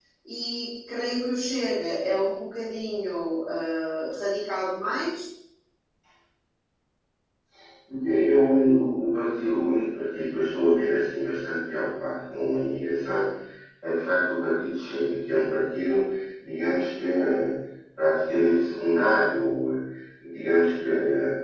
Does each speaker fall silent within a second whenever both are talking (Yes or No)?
Yes